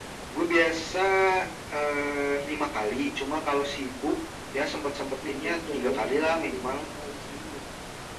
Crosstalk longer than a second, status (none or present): present